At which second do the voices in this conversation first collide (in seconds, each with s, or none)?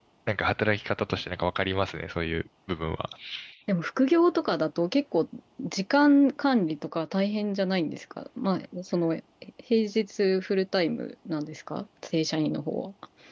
none